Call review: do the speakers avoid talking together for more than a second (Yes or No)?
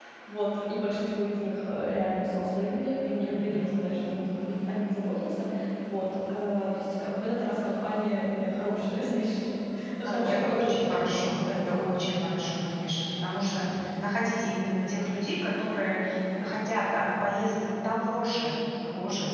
No